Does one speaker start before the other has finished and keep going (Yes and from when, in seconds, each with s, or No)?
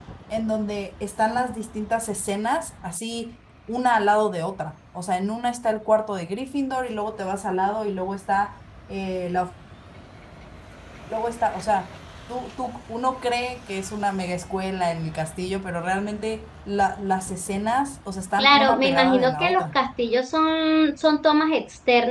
Yes, from 18.4 s